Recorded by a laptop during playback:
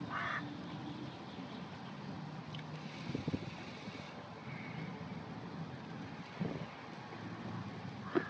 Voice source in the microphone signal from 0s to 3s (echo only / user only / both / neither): neither